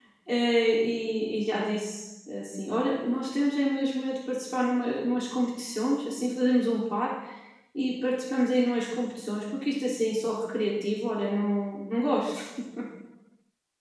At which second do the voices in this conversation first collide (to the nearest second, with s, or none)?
none